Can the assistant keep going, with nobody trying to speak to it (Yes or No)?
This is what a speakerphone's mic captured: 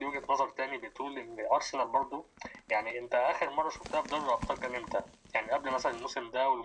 Yes